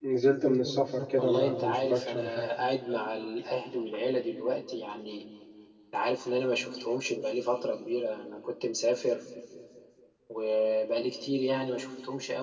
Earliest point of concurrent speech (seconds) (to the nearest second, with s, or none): 1 s